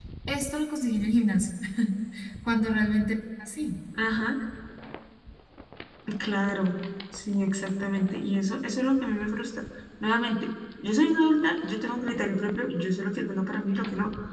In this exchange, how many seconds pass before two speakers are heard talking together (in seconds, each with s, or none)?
none